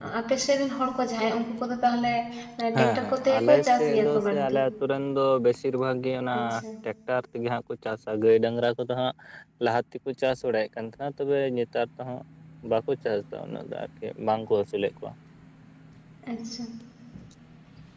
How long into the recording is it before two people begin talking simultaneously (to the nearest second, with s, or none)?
3 s